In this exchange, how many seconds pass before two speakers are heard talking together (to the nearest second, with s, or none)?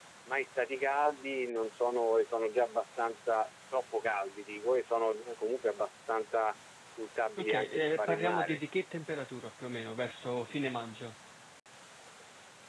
7 s